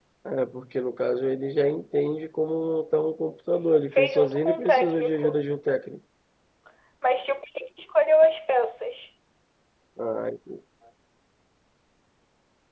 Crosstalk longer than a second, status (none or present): present